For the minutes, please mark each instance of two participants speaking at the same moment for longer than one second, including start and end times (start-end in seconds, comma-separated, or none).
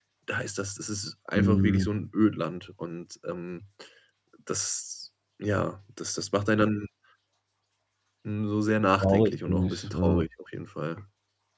9.0-10.2